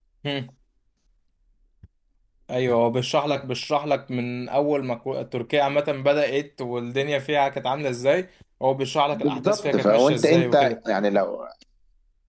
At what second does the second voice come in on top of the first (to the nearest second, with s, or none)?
9 s